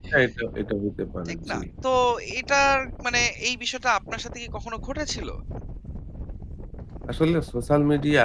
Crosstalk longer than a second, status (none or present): none